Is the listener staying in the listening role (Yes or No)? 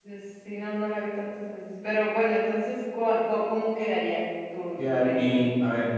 No